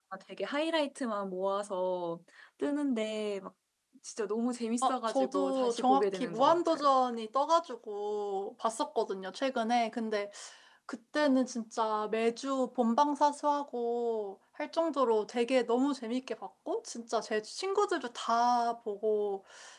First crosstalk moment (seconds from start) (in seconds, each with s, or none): 4.8 s